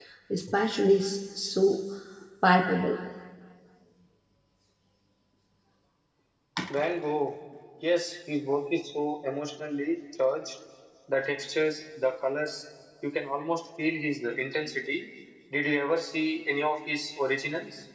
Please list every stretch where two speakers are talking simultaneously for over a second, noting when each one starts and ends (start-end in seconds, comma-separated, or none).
none